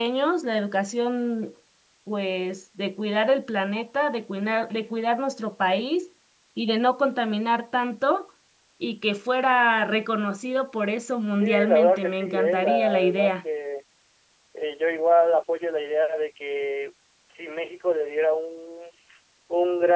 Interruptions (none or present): present